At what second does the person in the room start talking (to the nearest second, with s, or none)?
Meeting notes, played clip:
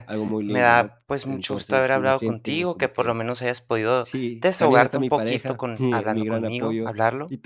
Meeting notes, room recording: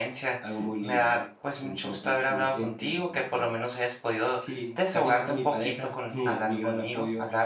none